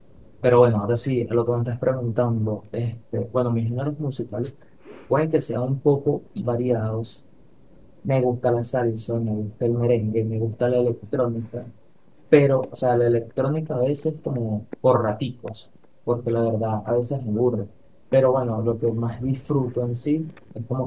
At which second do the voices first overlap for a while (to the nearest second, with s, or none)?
none